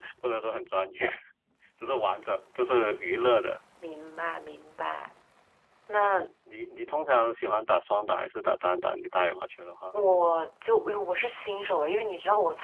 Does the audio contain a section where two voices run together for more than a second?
No

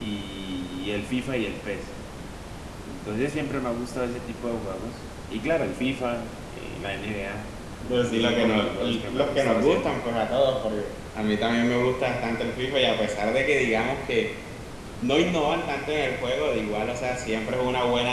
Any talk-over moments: Yes, from 8.0 s

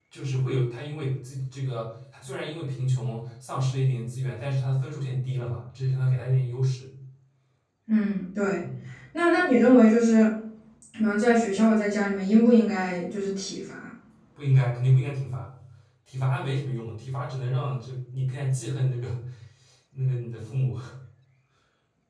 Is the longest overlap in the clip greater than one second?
No

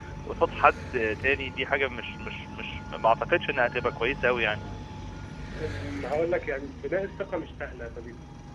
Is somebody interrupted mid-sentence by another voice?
No

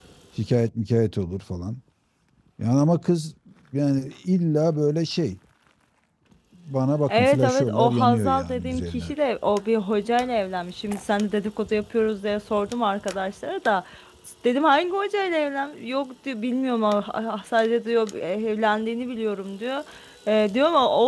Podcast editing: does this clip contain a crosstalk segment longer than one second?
Yes, from 7.1 s

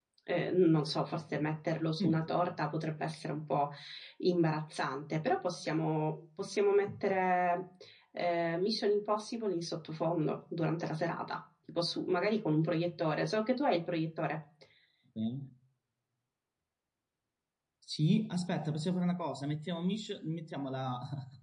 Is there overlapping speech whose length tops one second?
No

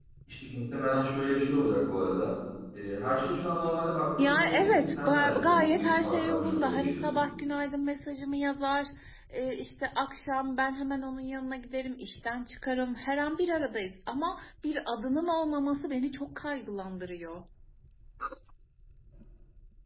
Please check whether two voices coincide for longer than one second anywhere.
Yes, from 4.2 s

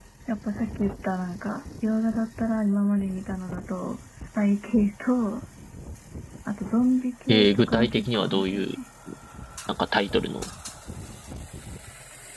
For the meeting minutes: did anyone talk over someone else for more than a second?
Yes, from 7.3 s

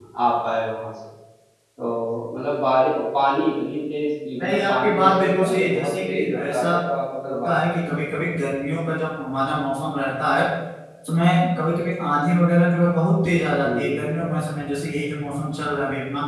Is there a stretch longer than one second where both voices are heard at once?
Yes, from 4.4 s

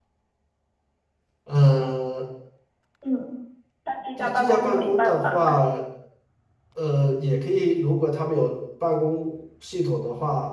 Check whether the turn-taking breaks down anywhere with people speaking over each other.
Yes, from 4.2 s

